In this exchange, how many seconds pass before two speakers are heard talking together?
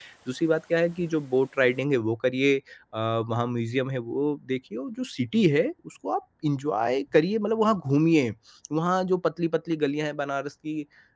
none

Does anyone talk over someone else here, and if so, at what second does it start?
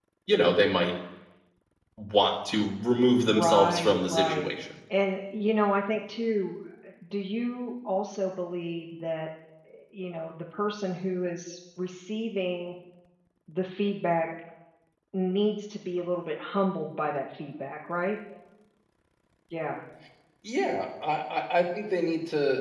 3.3 s

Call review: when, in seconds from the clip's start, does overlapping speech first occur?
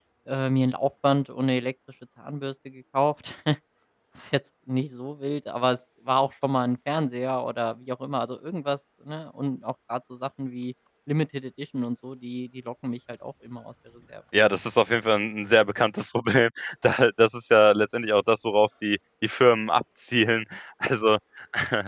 none

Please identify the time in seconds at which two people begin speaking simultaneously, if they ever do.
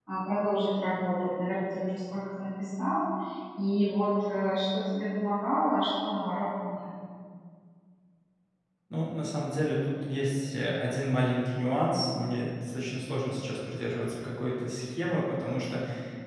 none

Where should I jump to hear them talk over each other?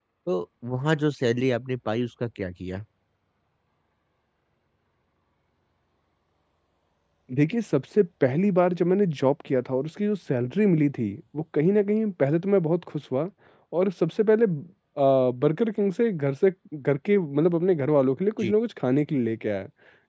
none

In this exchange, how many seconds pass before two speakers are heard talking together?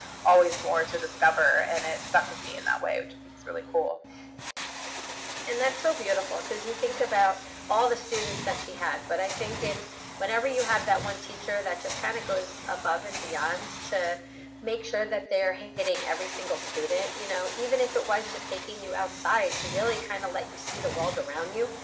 none

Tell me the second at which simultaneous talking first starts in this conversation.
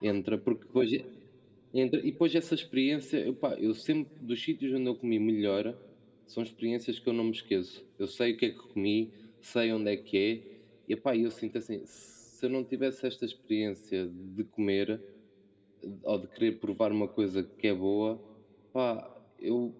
none

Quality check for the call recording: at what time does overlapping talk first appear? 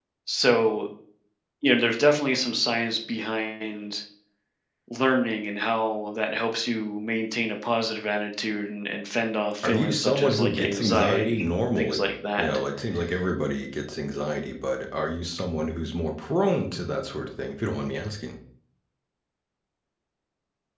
9.6 s

